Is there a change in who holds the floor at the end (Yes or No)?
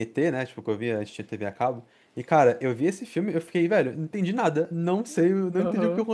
No